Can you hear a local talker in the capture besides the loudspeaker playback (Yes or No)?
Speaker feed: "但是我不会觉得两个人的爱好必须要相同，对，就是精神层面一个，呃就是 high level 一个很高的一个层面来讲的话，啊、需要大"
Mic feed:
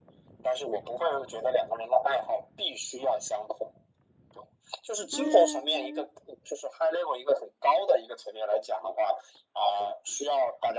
Yes